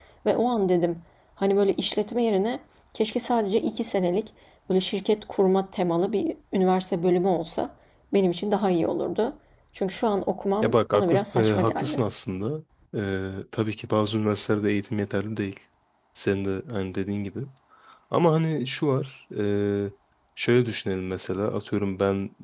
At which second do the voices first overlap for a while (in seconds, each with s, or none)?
10.6 s